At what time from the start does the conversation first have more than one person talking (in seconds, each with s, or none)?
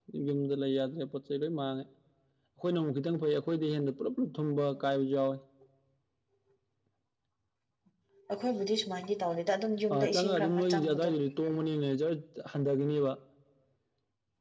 9.9 s